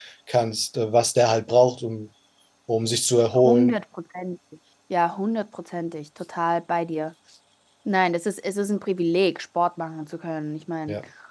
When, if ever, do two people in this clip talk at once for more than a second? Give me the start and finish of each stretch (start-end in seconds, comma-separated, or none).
none